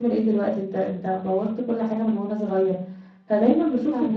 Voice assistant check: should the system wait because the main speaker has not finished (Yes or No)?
Yes